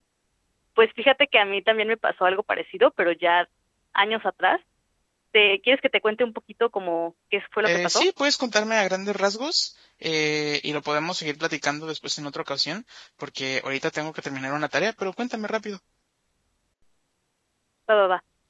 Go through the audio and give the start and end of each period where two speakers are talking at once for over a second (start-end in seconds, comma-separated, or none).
none